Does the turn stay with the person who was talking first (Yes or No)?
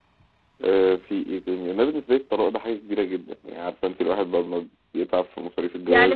No